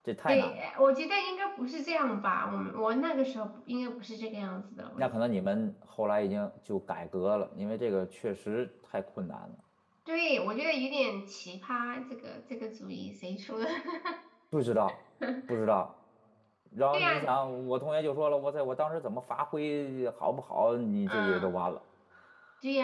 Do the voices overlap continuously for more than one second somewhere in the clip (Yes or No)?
No